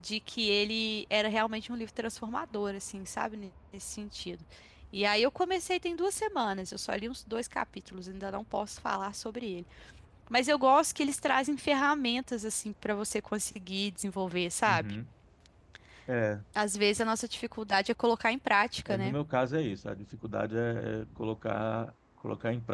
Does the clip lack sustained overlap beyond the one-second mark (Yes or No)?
Yes